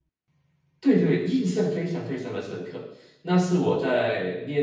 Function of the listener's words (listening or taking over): listening